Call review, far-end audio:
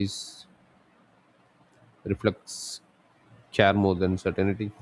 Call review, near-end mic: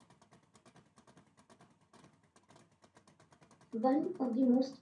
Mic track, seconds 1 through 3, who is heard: neither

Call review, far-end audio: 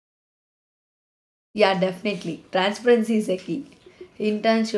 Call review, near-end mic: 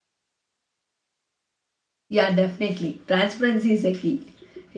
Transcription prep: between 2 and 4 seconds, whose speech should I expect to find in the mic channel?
echo only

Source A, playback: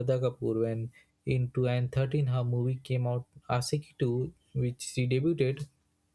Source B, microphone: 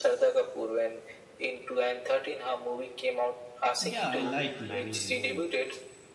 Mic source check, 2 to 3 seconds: echo only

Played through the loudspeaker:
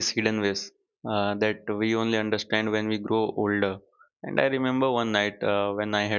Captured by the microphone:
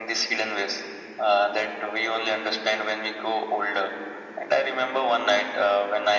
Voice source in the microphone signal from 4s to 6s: echo only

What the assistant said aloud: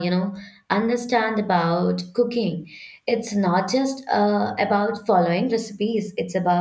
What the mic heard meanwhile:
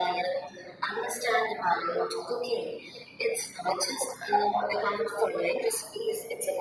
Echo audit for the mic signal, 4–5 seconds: echo only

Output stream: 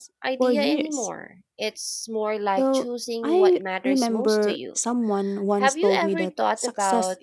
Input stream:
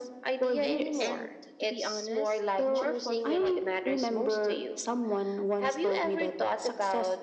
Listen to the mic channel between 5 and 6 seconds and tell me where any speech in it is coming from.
echo only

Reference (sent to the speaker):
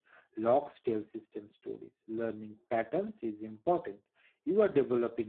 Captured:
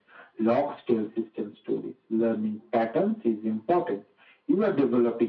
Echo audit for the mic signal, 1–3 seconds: echo only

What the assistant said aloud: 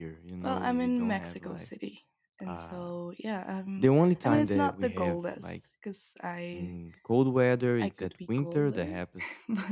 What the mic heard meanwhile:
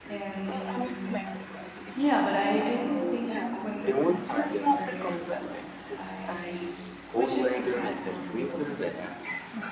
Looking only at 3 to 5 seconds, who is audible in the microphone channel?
both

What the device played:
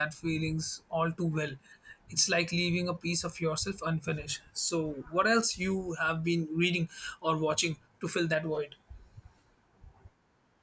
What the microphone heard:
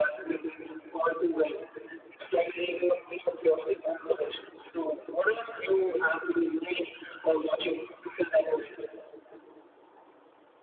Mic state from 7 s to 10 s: echo only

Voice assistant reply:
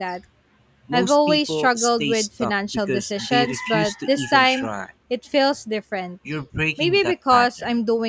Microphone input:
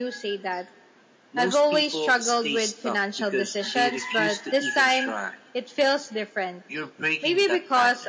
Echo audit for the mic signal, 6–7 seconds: echo only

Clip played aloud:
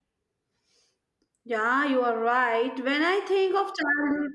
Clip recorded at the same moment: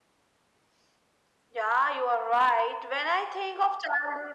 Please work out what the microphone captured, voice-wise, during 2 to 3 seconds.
echo only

